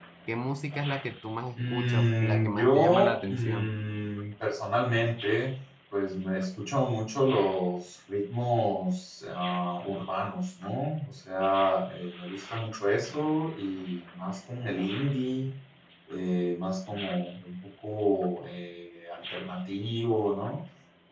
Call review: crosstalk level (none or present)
present